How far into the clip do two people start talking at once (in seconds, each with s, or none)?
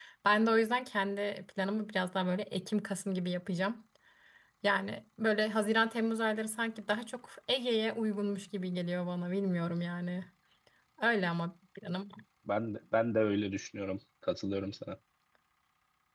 none